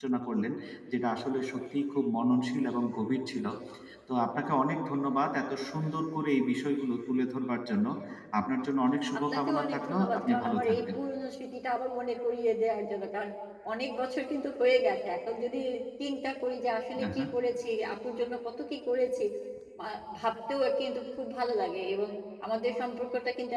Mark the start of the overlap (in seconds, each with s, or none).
9.2 s